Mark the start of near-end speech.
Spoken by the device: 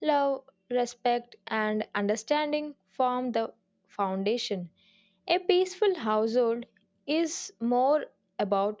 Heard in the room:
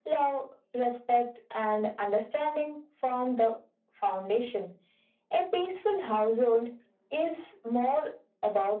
none

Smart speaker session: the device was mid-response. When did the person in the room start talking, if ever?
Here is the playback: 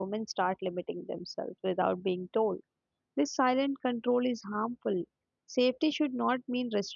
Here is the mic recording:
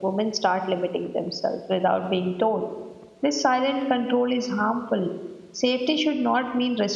none

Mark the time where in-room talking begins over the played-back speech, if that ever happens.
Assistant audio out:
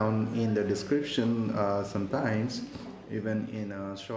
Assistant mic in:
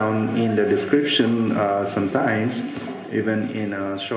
none

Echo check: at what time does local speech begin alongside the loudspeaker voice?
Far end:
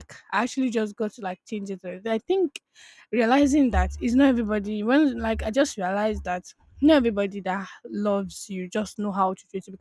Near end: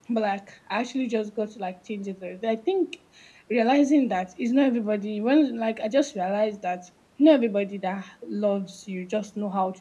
none

